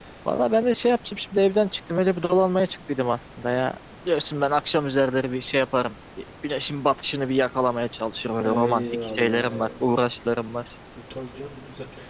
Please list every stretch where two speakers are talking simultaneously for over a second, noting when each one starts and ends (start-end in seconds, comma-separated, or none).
8.5-9.7